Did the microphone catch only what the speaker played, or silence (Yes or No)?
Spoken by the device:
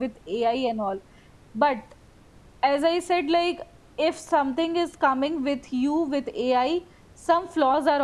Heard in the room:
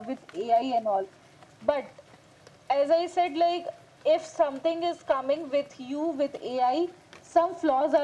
Yes